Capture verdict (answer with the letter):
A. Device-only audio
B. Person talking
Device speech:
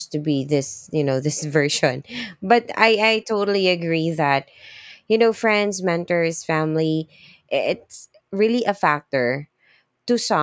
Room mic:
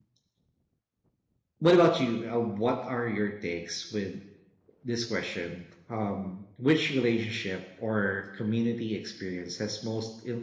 B